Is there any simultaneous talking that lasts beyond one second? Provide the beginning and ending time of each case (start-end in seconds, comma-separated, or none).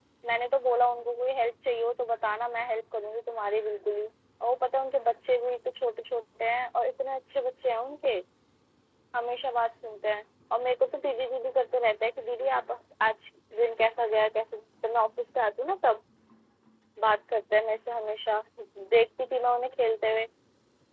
none